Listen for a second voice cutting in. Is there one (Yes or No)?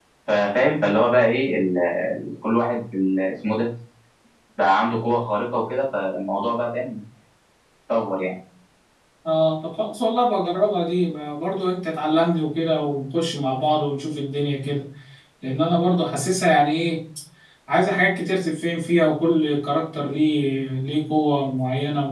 No